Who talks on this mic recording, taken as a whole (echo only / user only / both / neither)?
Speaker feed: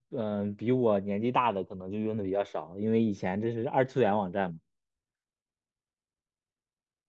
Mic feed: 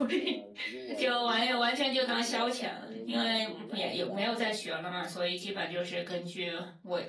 both